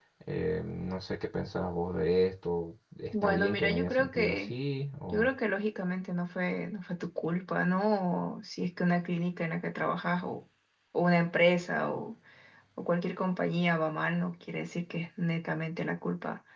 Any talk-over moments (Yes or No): Yes